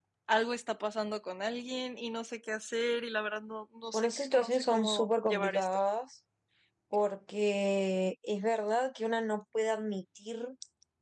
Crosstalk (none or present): present